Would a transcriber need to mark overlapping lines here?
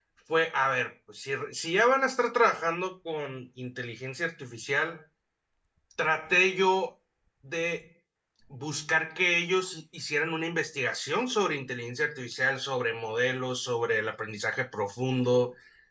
No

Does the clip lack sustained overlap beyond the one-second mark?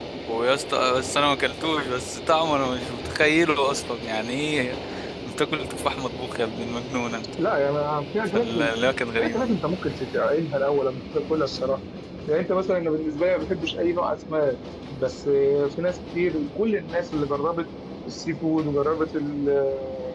Yes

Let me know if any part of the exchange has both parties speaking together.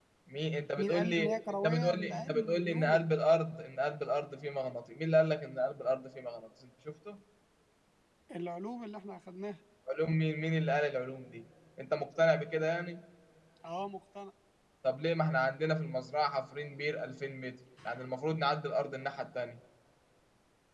Yes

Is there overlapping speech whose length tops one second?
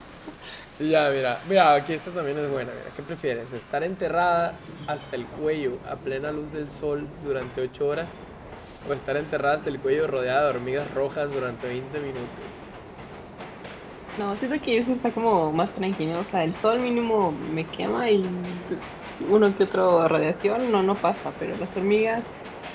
No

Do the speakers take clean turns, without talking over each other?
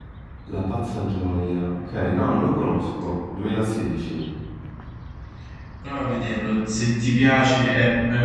Yes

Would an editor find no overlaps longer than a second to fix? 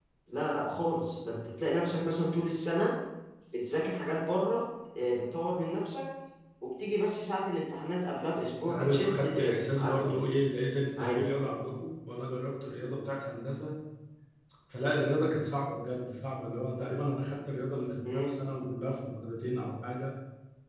No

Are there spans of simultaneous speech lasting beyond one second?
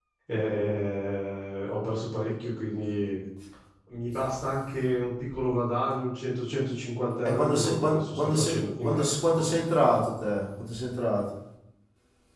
Yes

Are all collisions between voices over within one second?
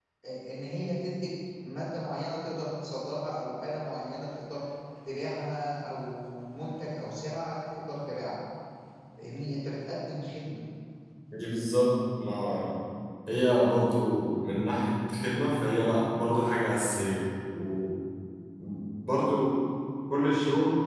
Yes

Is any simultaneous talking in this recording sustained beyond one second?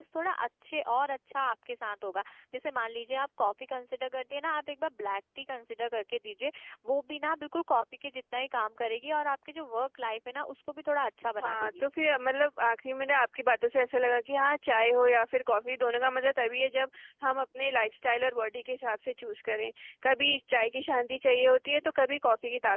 No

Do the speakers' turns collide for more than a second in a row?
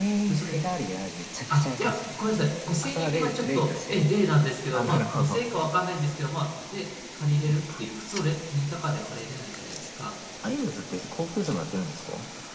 Yes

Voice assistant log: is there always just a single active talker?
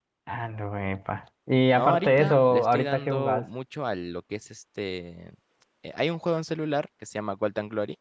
No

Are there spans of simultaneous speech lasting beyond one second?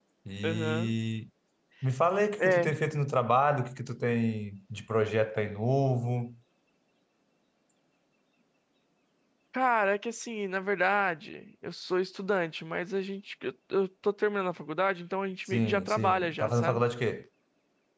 Yes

